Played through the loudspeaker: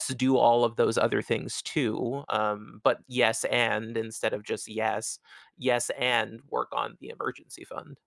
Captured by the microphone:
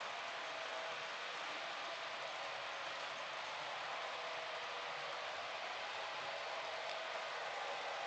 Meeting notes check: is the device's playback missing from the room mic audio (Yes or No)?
Yes